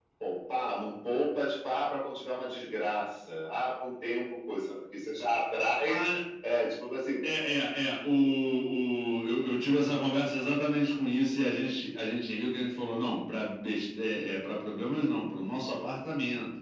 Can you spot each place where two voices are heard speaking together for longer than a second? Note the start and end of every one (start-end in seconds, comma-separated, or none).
none